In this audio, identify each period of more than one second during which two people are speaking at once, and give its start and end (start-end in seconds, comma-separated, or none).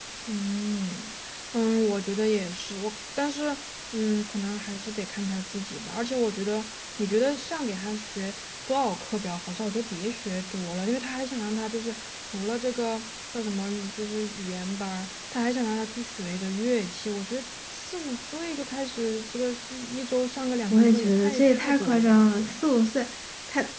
20.7-22.5